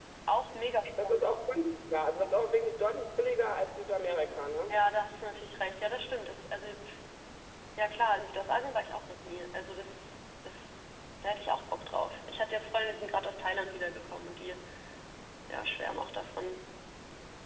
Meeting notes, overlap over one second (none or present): none